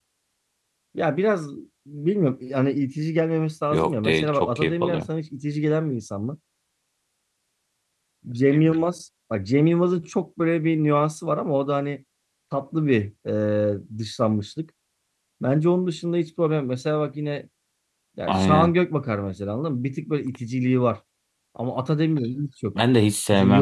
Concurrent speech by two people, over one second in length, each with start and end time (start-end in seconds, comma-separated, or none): 3.7-5.1